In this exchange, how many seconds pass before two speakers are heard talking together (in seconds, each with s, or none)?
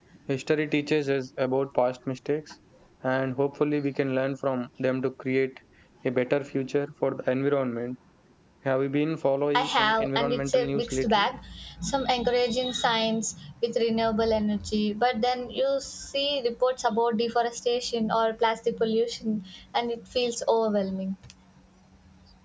9.5 s